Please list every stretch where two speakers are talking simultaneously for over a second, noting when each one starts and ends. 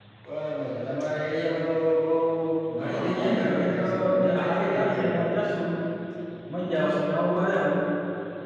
2.9-5.4

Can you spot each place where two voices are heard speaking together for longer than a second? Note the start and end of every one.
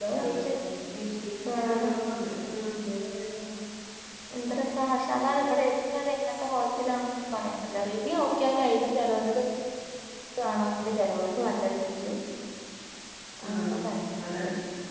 none

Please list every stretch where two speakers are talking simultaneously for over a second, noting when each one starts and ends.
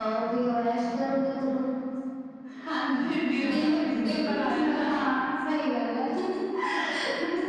3.6-4.9

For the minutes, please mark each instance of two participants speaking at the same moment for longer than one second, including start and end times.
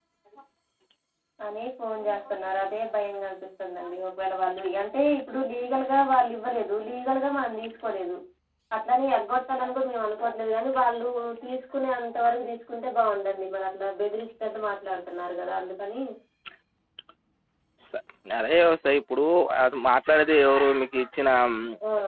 none

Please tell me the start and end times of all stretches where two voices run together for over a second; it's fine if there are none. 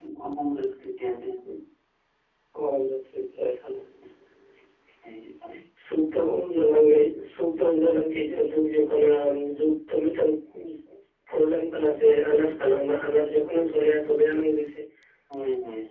none

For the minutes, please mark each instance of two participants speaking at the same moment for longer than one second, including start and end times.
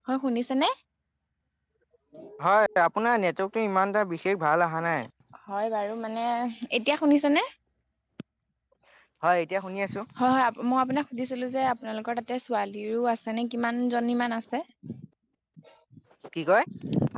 none

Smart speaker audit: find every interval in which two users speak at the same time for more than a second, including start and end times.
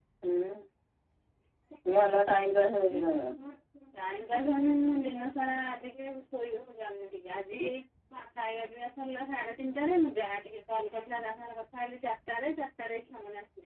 none

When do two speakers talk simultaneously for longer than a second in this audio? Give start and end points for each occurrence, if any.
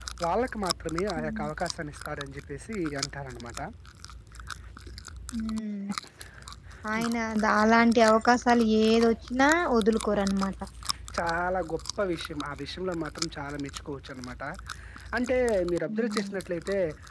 none

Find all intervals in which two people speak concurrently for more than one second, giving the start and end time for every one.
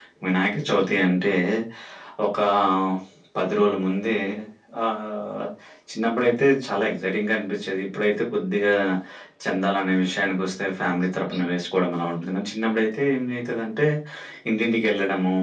none

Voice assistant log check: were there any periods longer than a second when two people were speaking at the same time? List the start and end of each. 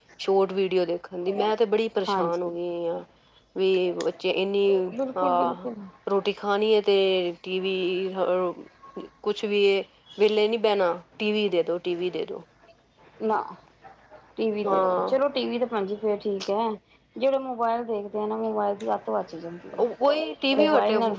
none

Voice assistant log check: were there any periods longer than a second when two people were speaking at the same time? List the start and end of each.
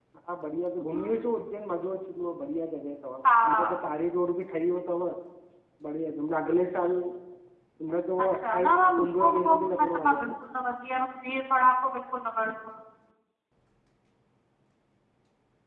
8.2-10.2

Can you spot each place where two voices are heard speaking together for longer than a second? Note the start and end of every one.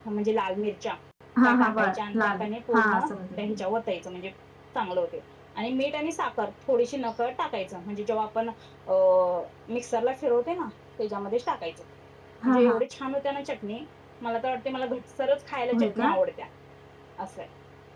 1.4-3.6

